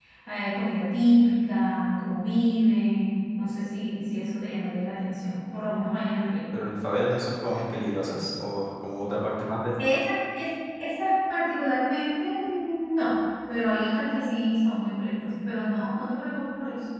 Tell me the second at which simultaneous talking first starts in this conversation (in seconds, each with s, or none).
none